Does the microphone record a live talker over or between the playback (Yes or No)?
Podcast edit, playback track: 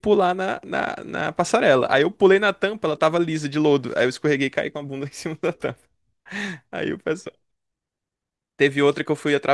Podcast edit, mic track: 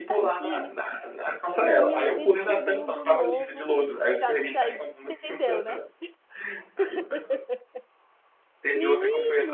Yes